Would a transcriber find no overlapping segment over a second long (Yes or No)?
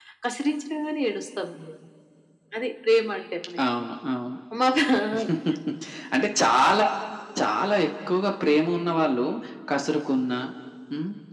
Yes